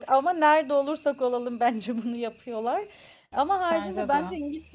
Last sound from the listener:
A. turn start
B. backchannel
B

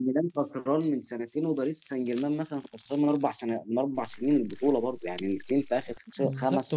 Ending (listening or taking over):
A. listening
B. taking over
B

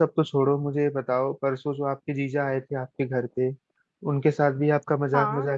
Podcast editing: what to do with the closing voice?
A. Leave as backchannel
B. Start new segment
A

